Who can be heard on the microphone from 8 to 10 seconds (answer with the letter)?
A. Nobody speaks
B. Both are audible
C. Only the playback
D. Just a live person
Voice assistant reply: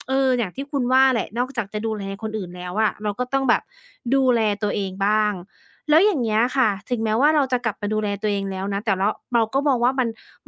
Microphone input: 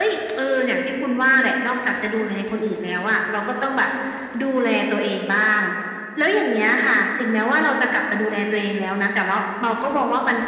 C